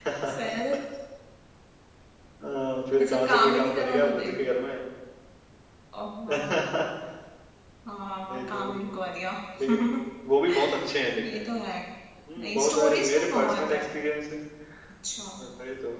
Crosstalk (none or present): present